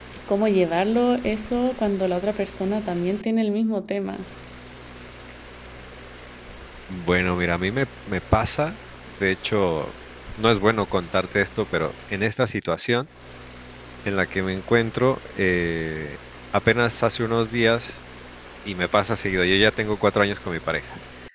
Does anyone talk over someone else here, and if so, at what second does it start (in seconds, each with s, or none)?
none